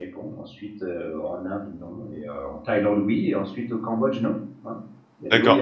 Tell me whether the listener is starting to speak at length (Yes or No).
Yes